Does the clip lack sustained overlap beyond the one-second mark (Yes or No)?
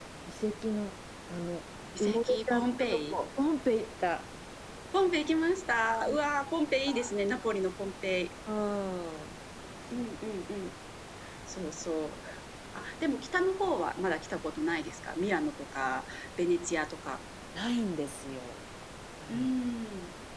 No